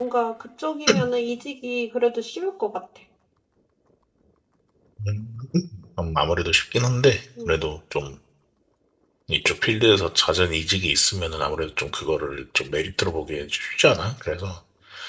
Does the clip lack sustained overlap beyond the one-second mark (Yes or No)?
Yes